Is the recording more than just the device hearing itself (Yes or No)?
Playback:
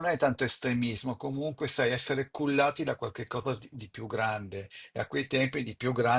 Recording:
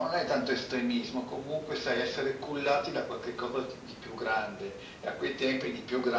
No